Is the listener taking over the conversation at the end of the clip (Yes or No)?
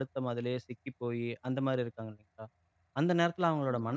No